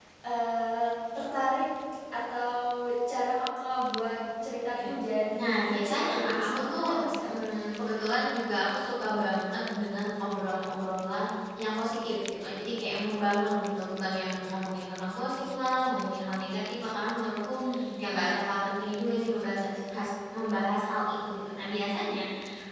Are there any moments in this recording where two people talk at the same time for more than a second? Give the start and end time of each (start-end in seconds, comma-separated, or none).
5.4-6.9